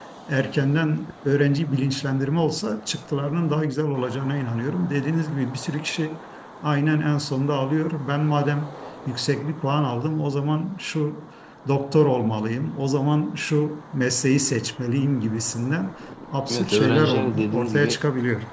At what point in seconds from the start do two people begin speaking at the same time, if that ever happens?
16 s

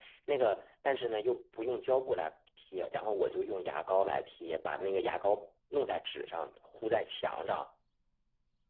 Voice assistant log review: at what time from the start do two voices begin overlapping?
none

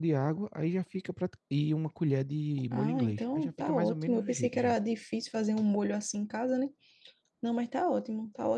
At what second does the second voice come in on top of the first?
3 s

